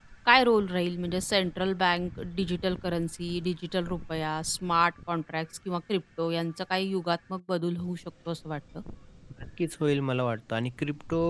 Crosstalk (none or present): none